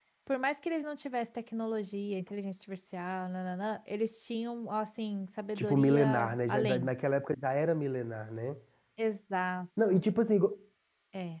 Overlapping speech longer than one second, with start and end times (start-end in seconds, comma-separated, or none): 5.6-6.9